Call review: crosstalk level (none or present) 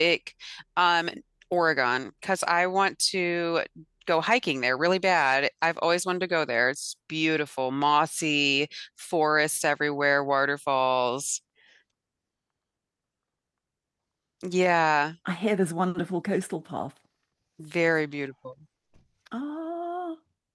none